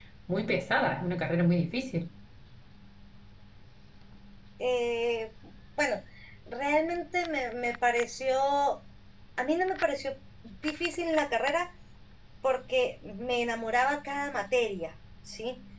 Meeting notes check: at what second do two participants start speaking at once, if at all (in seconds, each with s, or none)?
none